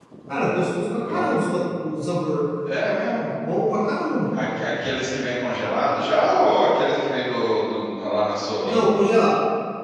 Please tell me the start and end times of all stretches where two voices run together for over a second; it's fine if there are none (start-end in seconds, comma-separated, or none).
none